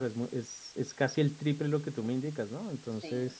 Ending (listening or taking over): taking over